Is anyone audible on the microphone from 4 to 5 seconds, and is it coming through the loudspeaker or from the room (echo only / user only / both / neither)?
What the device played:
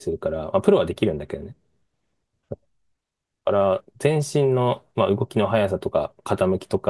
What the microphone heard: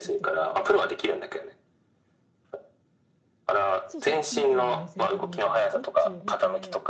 both